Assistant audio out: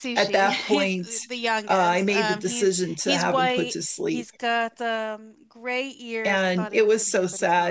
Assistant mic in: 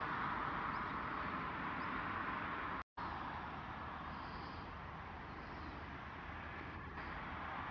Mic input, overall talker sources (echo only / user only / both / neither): neither